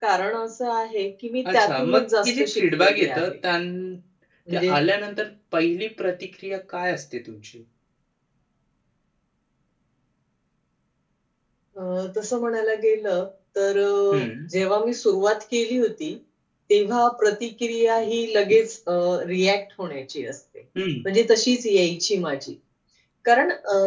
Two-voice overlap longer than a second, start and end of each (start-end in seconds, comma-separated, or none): 1.5-3.3